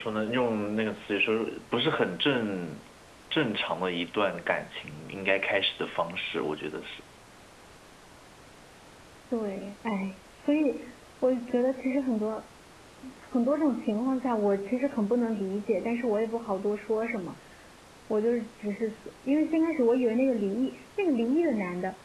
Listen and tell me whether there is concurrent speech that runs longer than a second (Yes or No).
No